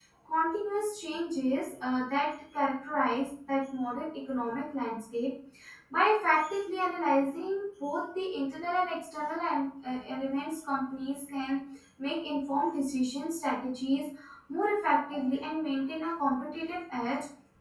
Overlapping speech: No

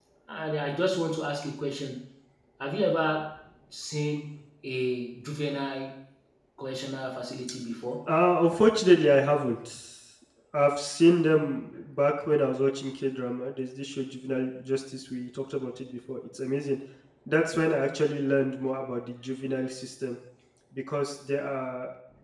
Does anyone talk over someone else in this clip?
No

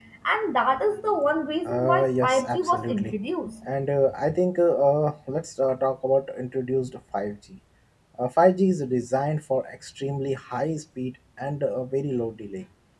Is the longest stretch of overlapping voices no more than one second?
No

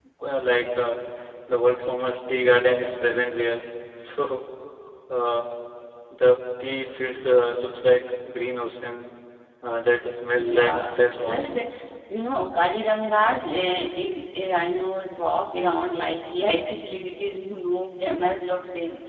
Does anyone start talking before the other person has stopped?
Yes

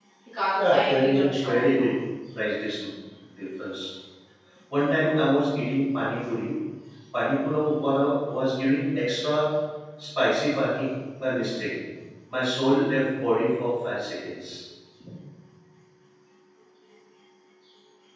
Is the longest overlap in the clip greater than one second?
Yes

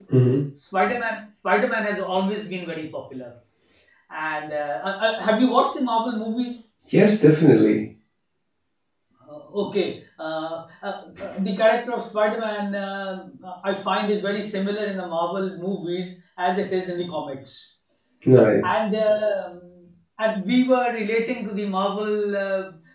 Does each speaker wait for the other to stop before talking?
Yes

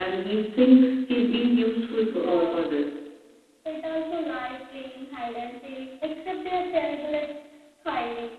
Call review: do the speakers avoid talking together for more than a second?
Yes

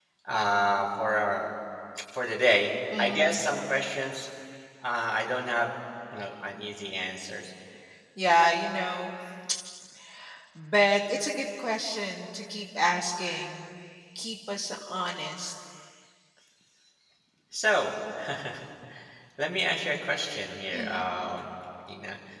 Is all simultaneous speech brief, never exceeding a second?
Yes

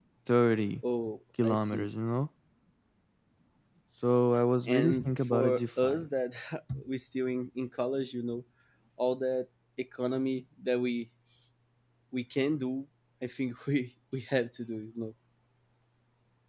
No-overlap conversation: No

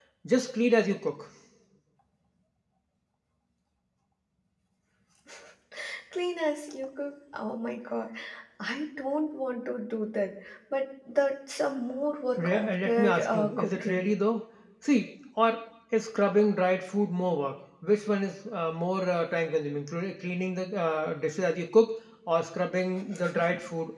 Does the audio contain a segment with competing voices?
Yes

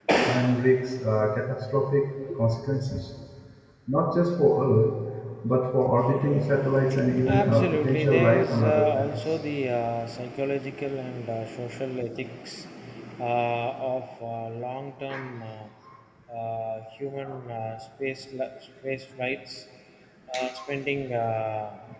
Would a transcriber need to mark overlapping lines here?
Yes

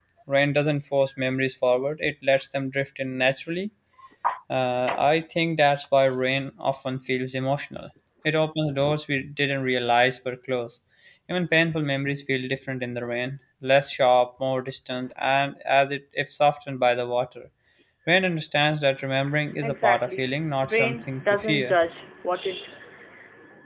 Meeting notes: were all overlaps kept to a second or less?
No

